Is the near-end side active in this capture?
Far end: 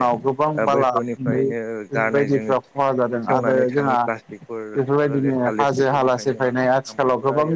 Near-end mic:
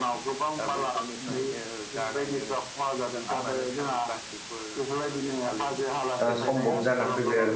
Yes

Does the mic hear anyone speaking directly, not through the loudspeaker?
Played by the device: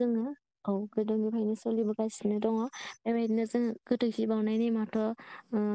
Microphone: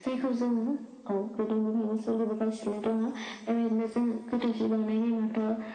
No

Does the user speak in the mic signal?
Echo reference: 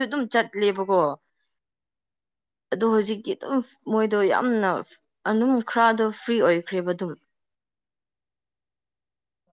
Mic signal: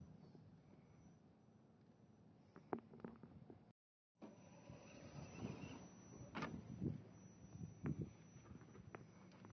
No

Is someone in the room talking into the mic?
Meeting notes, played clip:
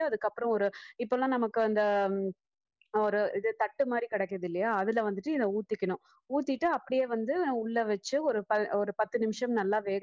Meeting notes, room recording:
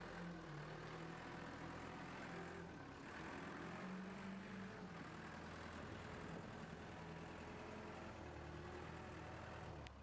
No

